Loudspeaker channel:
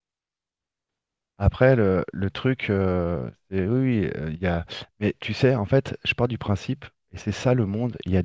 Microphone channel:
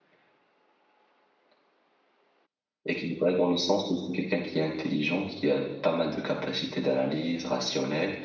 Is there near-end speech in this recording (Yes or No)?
Yes